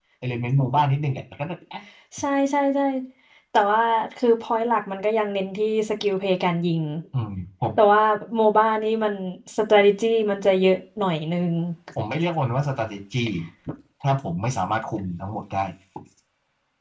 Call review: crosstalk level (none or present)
none